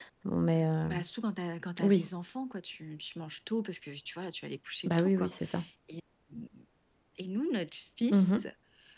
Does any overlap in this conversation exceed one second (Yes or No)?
No